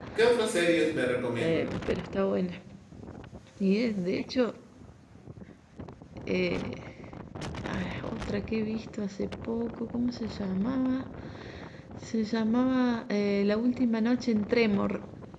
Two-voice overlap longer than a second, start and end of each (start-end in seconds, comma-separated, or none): none